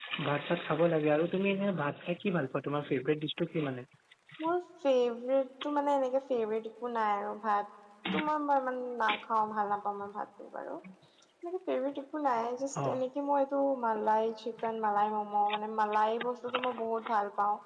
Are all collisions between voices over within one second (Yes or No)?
Yes